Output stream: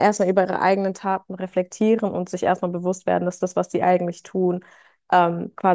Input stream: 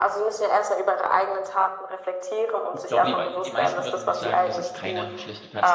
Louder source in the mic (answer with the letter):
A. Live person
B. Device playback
B